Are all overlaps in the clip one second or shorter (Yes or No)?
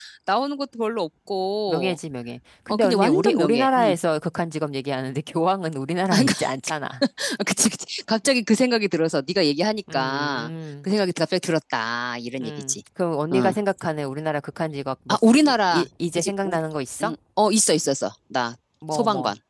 No